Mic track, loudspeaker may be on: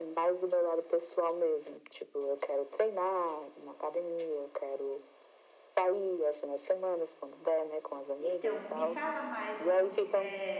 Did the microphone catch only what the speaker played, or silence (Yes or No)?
No